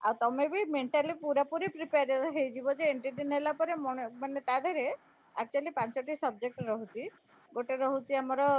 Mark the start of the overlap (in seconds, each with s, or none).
none